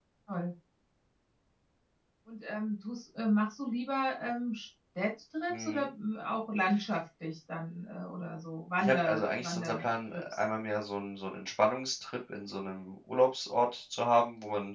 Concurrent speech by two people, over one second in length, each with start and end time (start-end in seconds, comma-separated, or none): 8.8-10.2